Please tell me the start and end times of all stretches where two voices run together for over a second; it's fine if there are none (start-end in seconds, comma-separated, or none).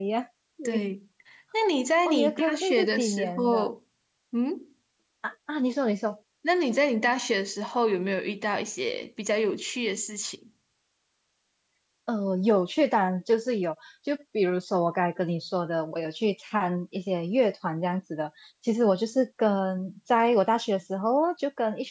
2.0-3.7